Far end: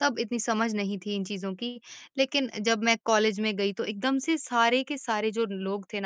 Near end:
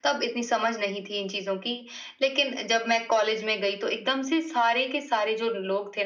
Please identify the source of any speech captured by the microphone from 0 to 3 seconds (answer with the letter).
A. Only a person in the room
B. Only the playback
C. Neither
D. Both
B